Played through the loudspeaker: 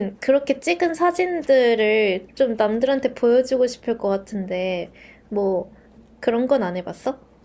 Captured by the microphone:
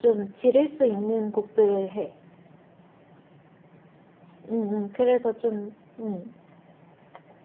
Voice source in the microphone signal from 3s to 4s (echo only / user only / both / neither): neither